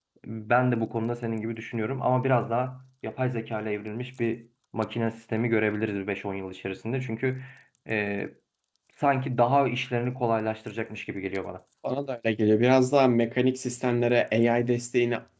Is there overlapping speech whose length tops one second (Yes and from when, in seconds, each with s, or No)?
No